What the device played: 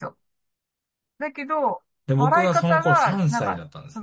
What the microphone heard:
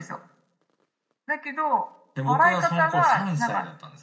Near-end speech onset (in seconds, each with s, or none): none